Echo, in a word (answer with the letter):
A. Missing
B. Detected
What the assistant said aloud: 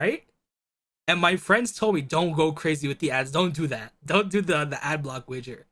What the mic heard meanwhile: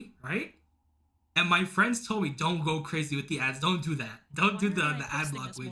B